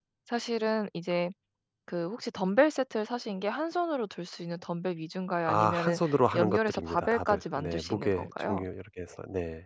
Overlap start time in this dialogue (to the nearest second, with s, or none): 5 s